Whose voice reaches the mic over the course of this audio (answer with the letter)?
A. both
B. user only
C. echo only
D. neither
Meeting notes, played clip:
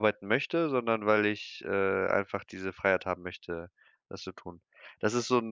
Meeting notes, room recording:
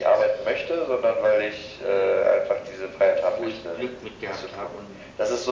A